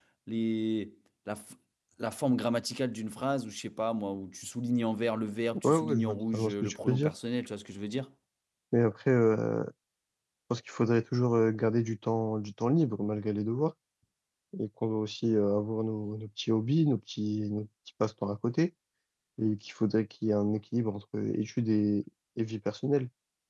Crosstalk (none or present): present